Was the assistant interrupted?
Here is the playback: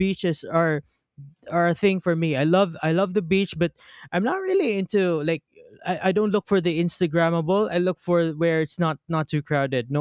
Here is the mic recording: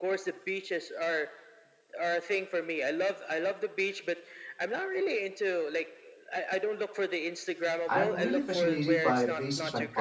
Yes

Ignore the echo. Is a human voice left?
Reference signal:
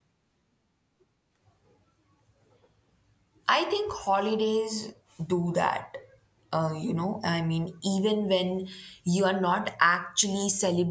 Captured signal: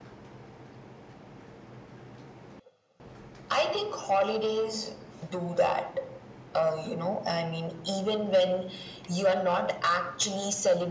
No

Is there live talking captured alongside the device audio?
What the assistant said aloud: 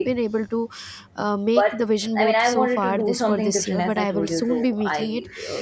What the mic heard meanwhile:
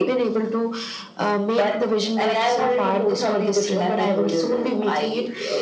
No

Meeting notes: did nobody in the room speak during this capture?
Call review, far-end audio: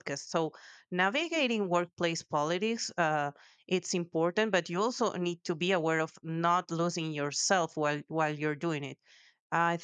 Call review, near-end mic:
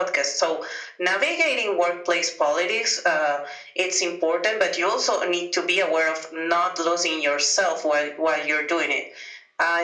Yes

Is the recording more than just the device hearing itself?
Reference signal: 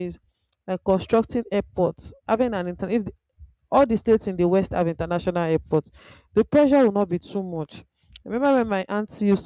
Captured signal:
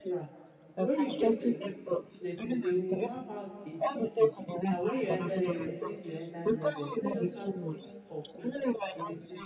Yes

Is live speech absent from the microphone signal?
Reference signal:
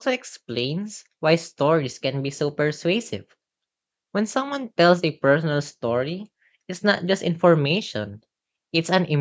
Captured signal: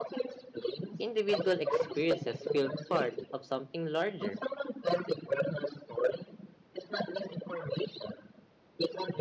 No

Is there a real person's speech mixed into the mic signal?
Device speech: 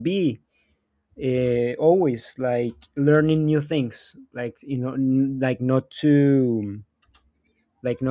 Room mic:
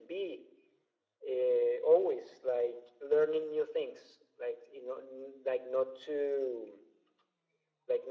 No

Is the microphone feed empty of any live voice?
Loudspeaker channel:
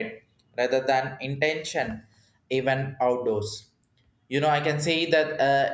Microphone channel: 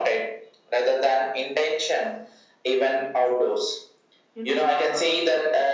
No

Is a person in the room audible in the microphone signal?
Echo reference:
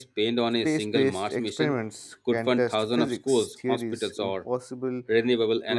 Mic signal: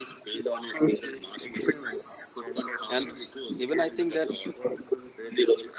Yes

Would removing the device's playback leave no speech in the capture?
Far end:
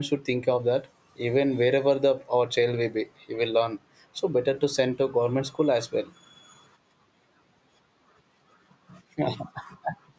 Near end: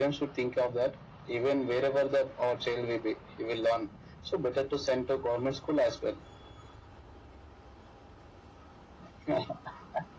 Yes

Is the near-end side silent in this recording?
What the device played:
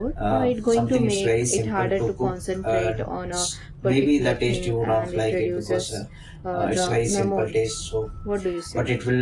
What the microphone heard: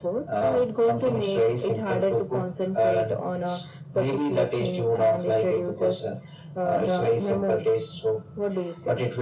Yes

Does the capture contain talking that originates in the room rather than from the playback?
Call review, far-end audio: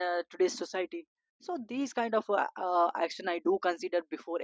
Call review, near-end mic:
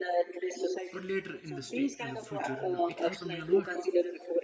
Yes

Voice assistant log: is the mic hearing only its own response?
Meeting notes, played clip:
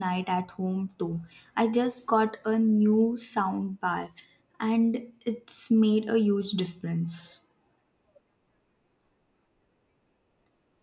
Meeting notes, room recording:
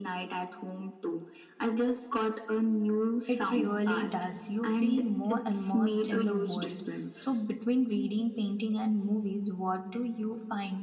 No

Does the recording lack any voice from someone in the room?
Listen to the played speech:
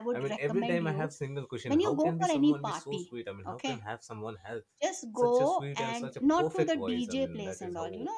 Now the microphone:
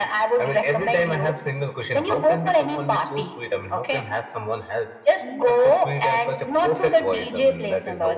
No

